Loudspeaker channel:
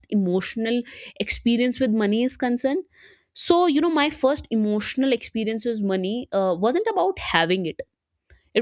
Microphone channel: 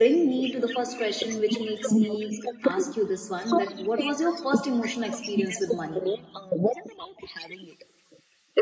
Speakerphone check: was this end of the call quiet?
No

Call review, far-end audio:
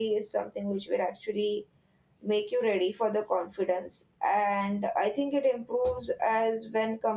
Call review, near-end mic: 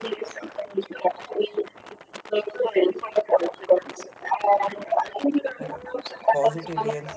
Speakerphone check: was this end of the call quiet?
No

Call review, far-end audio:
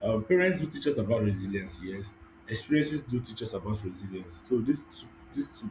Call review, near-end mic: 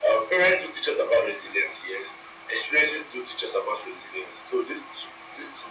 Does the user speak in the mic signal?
No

